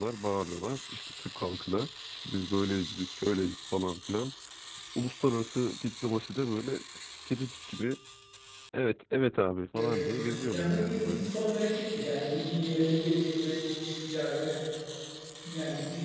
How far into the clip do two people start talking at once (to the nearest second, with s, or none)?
10 s